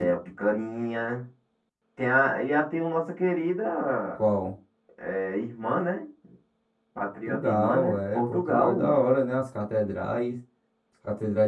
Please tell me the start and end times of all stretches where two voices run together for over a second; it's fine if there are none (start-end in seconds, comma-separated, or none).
7.3-9.0